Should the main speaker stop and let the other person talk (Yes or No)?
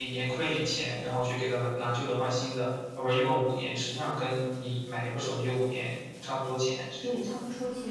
Yes